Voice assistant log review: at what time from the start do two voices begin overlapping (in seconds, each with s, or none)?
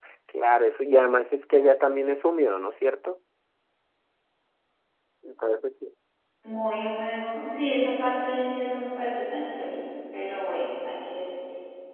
none